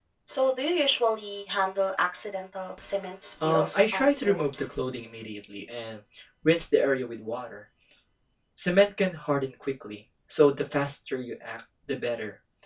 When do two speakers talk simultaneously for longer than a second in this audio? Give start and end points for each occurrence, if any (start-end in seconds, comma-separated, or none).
3.4-4.7